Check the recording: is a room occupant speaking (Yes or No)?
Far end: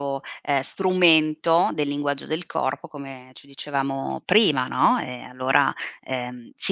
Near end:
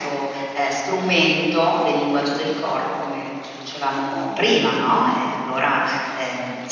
No